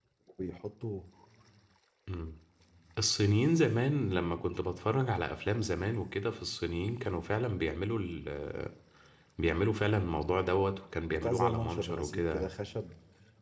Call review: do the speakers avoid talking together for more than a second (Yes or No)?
No